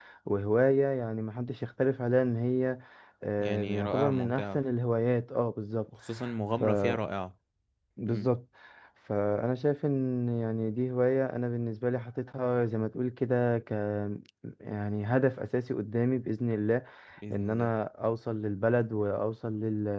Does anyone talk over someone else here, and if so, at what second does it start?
3 s

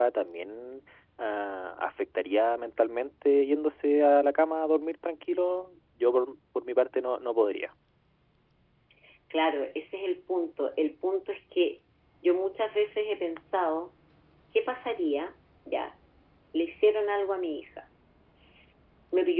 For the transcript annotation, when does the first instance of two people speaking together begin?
none

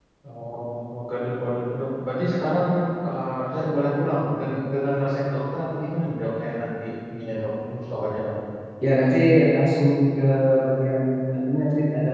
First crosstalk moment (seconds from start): none

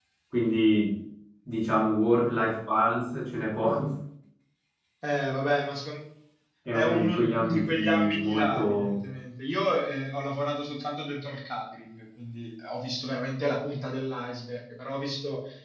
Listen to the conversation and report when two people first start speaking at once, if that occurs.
7 s

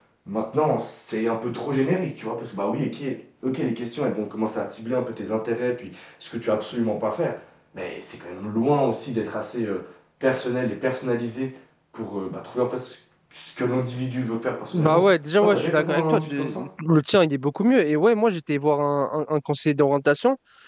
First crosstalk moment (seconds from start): 15 s

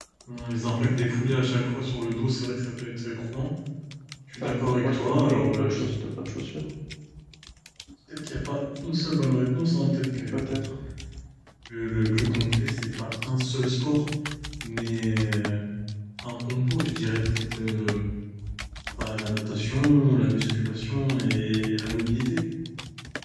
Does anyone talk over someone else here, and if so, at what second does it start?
4 s

